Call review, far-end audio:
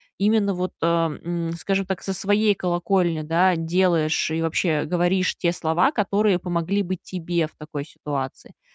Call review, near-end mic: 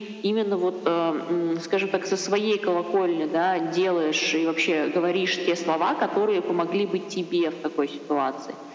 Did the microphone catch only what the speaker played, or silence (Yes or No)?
Yes